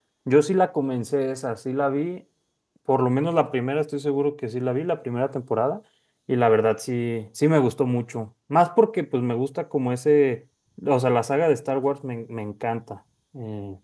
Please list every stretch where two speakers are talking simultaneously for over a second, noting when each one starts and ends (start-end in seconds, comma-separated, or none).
none